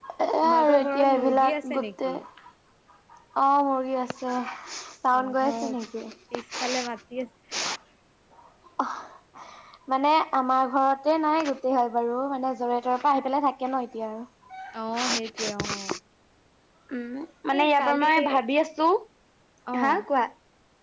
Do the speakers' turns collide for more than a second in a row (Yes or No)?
Yes